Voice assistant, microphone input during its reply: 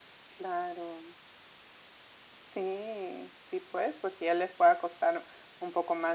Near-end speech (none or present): none